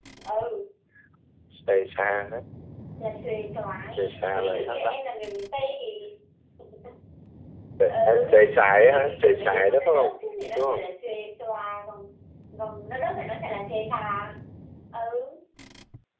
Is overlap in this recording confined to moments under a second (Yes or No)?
No